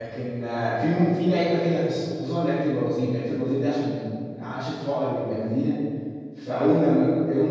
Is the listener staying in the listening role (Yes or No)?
Yes